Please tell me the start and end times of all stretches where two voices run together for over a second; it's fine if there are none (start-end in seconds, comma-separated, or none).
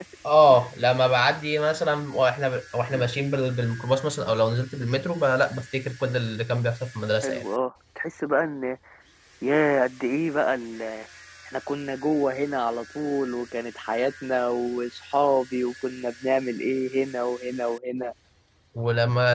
none